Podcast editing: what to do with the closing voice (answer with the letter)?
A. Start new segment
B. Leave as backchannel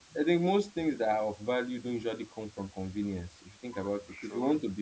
B